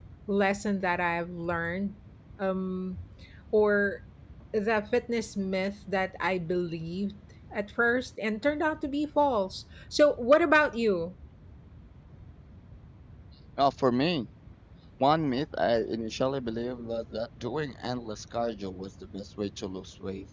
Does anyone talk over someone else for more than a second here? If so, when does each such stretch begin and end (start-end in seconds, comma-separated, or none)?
none